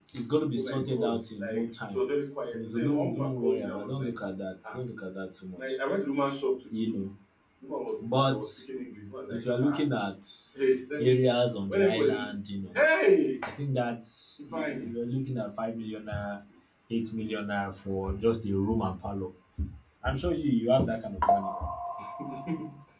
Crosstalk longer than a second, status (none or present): present